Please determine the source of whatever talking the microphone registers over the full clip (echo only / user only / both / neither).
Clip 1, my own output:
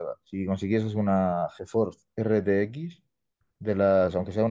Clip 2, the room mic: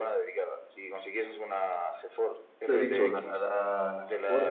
both